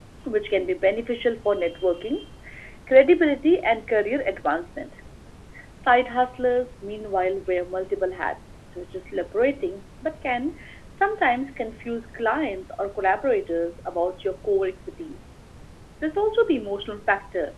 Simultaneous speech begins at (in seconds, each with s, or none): none